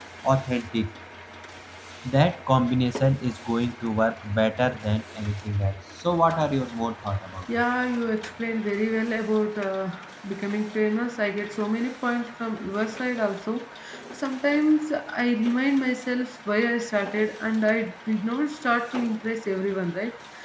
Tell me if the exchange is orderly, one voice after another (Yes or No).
Yes